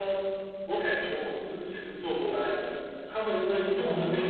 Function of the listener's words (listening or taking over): listening